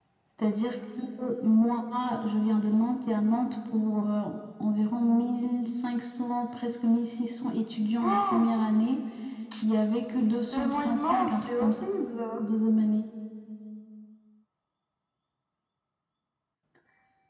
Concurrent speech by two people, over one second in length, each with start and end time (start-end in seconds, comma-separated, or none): 10.2-11.9